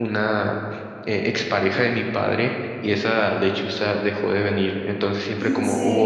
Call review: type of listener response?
listening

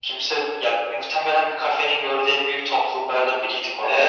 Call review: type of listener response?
taking over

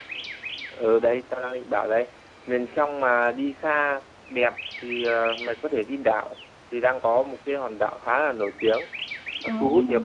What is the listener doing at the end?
listening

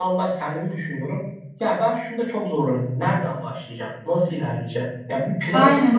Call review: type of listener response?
taking over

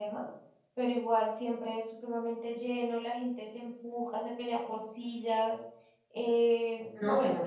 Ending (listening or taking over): listening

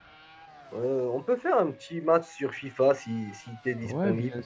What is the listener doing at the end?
taking over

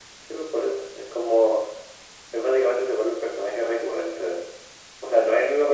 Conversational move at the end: listening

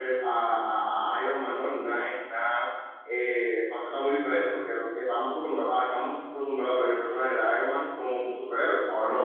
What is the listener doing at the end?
listening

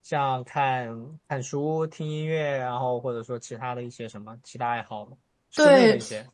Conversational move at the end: taking over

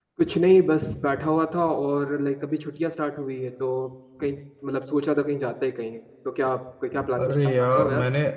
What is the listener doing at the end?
taking over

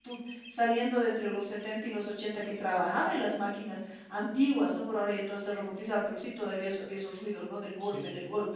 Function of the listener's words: listening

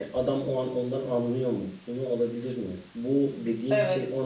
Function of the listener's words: listening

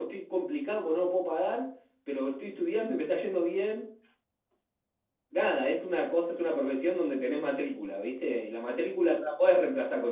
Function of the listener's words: listening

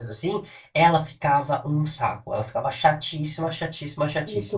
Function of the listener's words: listening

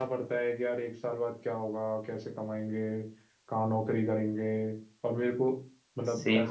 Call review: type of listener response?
taking over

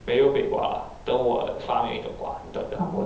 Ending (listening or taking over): taking over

